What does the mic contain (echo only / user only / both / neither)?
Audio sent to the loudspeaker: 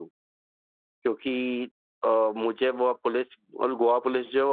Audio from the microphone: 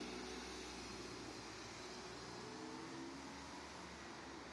neither